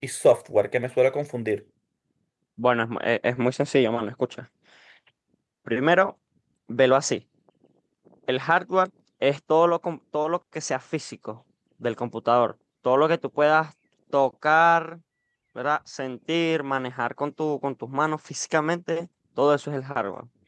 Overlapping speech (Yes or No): No